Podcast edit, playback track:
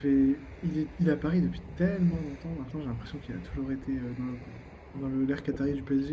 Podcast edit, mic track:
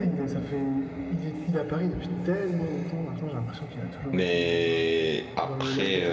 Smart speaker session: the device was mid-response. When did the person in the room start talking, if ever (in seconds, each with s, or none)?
4.1 s